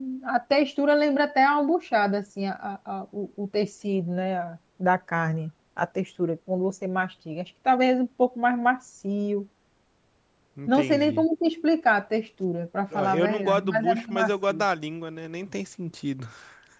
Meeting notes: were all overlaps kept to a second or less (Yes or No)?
No